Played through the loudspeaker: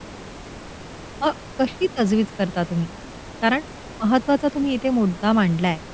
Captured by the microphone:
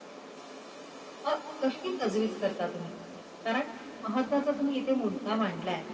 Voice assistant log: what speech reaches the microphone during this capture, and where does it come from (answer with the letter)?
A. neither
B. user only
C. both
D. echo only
D